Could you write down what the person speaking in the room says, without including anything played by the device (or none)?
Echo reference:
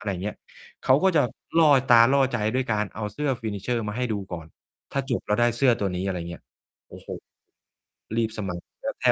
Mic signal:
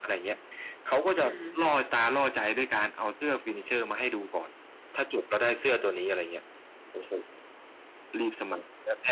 อือฮึ